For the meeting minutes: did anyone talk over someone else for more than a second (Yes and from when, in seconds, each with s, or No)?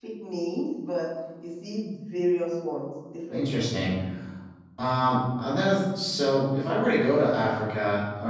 No